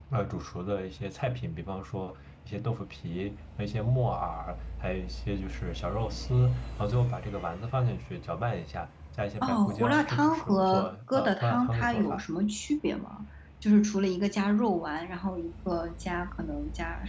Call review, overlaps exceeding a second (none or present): present